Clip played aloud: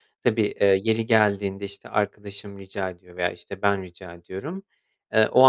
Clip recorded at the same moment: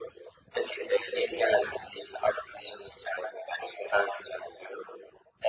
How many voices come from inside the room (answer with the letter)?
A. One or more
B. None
B